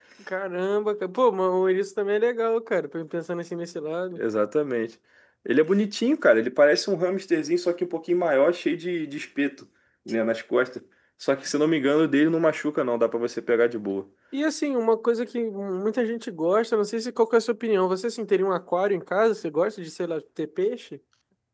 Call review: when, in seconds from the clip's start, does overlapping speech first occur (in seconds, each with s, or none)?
none